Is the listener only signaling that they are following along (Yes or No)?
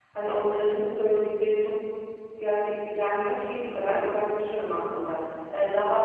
Yes